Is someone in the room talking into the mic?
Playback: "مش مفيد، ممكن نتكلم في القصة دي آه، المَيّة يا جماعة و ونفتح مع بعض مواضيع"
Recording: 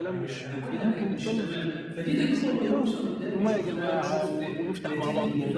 Yes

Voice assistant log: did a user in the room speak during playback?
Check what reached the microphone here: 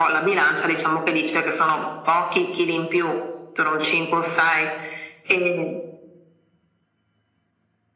No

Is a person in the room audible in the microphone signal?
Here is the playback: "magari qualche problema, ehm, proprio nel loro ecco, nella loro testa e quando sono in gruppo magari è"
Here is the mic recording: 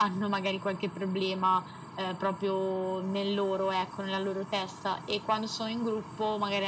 No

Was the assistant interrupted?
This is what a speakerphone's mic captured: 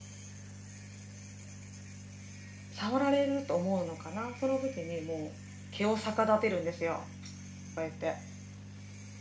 Yes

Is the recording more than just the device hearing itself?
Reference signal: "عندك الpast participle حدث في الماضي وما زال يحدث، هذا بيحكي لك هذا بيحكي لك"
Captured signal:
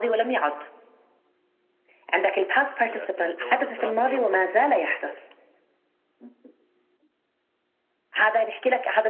Yes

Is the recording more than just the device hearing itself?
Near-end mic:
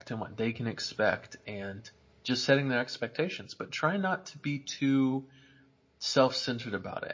Yes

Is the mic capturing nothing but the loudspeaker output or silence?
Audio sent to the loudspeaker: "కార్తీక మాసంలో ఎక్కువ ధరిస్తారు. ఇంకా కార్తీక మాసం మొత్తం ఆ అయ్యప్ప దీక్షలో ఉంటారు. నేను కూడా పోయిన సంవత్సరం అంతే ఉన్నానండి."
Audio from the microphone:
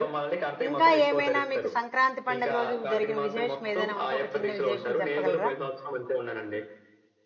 No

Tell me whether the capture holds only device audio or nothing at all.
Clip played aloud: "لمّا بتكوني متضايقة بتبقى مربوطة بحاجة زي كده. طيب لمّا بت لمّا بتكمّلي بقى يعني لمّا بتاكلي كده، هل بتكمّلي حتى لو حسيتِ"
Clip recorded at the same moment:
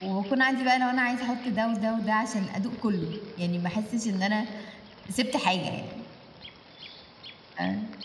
No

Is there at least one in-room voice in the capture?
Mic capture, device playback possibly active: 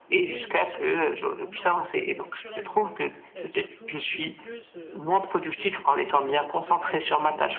Yes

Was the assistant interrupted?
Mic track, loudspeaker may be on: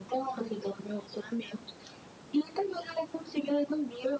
No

